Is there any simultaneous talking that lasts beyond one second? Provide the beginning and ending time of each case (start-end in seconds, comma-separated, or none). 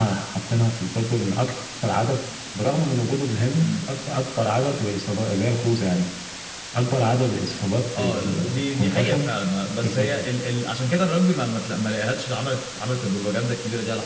8.0-9.3